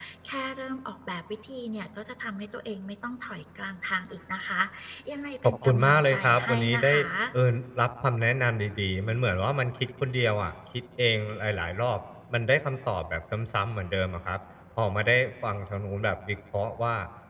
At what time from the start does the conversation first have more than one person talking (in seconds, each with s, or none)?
5.4 s